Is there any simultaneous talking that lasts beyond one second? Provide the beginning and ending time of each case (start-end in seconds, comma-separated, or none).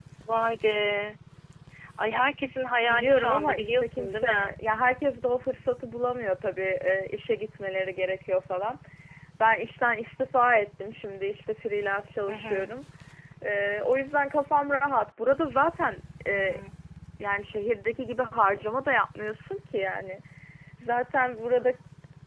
2.9-4.5